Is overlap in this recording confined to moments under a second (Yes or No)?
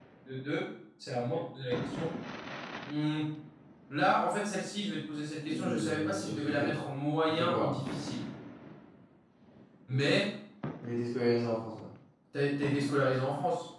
No